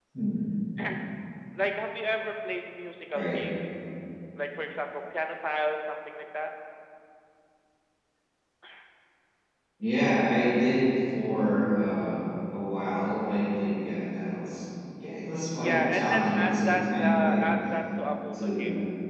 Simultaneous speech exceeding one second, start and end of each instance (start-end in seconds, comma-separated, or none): 15.6-17.4